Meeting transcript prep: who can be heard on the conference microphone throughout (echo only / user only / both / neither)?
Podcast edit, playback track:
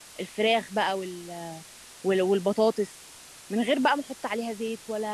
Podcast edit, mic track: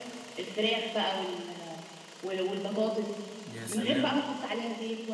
both